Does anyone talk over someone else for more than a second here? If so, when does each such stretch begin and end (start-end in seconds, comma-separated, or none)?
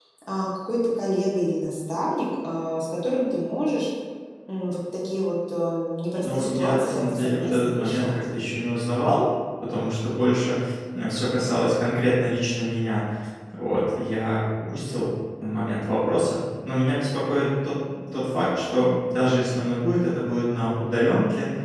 6.2-8.2